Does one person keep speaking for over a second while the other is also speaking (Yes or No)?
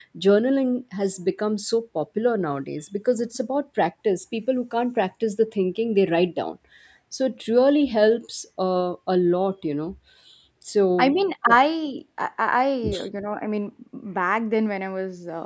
No